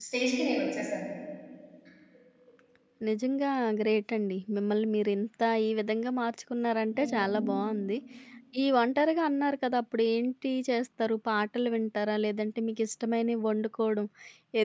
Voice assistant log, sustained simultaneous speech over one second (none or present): none